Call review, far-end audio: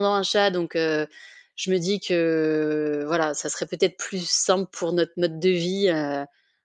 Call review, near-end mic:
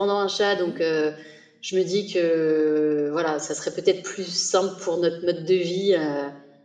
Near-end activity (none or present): present